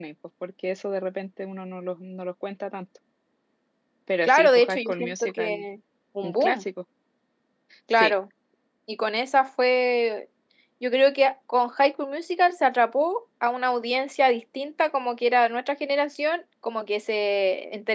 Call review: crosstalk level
present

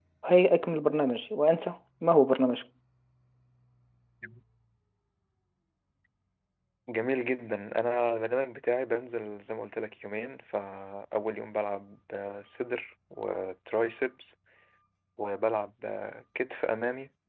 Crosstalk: none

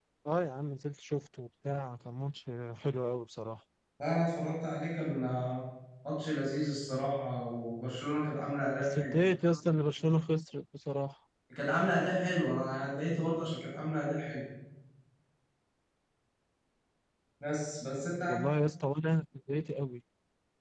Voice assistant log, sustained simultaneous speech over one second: none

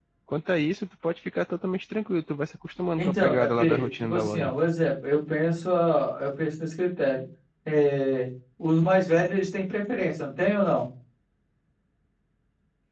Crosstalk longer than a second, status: present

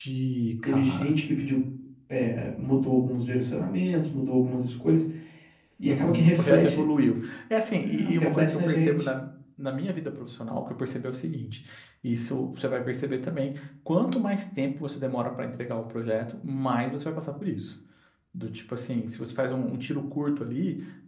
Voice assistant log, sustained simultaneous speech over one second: present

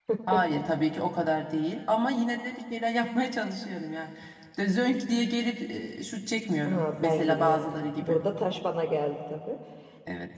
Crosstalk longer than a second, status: present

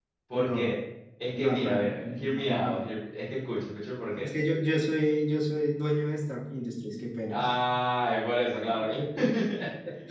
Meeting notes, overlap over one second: present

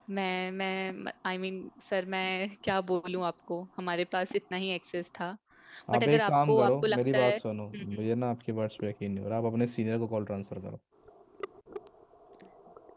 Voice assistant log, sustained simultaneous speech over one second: present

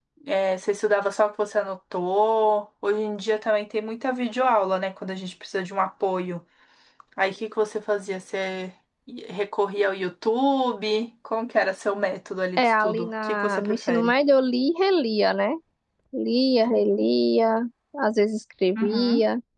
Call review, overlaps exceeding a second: present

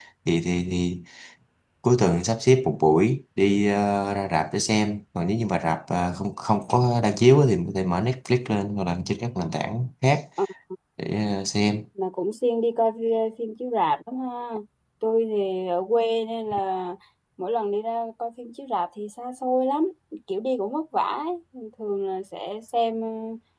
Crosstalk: none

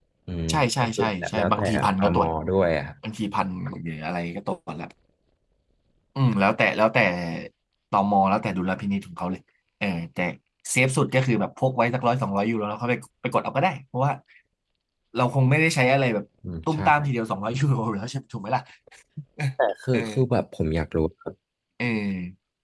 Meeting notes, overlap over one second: present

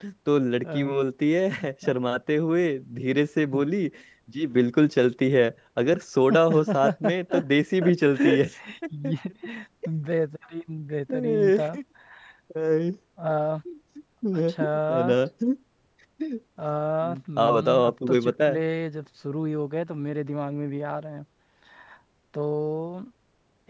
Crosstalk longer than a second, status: present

